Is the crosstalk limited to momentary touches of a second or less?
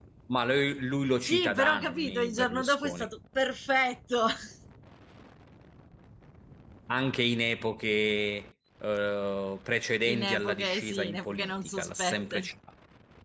No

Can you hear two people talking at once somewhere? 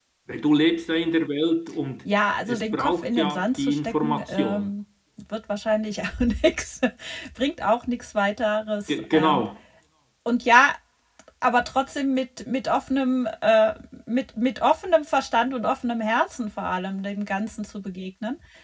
Yes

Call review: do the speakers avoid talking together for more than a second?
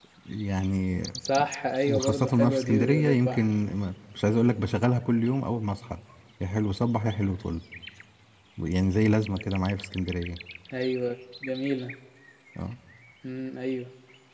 No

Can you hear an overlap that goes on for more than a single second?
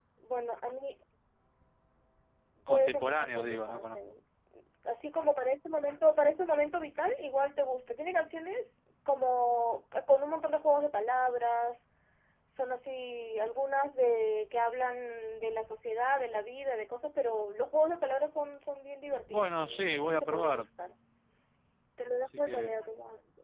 Yes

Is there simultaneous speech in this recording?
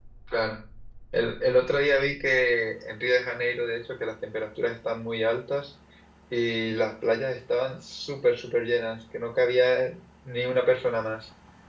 No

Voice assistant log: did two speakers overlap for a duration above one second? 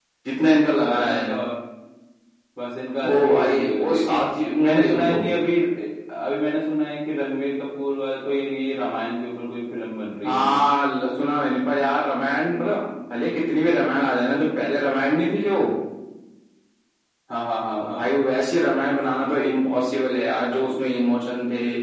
Yes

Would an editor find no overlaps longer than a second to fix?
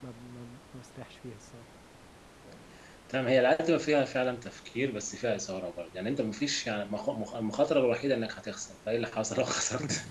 Yes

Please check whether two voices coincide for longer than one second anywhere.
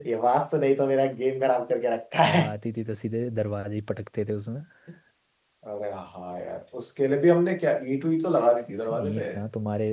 No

